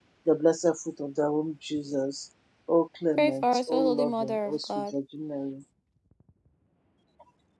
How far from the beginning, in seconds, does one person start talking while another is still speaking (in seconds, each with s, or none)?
3.2 s